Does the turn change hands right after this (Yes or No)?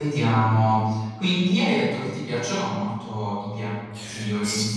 Yes